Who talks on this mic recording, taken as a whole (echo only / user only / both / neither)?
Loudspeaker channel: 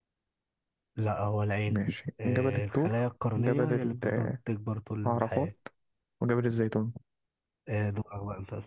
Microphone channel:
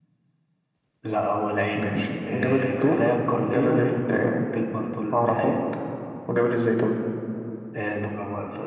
echo only